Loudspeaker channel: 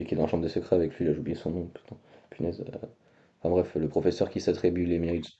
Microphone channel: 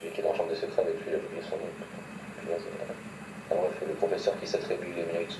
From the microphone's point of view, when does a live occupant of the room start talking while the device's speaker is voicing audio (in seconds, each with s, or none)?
none